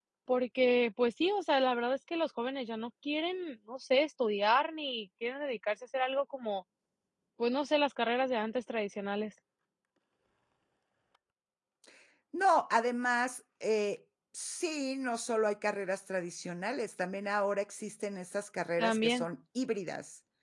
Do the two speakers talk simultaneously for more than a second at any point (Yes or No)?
No